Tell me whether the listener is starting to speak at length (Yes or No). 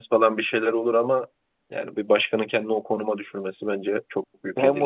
Yes